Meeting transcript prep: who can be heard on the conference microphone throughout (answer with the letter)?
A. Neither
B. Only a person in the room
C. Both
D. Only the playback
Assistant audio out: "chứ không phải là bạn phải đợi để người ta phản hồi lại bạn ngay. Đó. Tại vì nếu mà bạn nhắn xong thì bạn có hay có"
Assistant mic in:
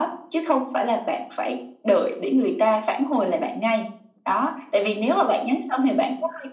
D